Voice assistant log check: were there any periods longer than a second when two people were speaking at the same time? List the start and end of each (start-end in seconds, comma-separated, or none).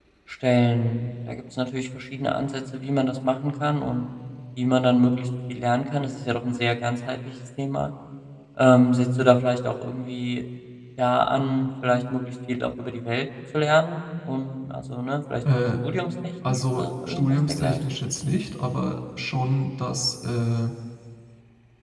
16.5-17.8